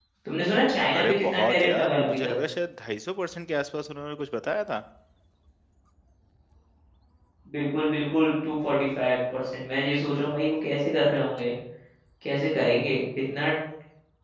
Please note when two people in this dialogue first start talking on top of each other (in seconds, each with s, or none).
1.0 s